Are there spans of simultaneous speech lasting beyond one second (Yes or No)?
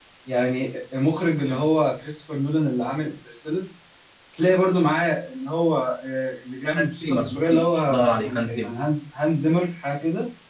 Yes